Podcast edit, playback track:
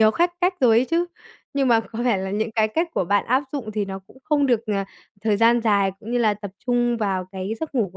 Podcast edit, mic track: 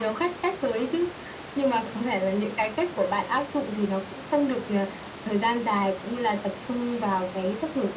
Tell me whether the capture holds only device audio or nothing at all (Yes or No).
Yes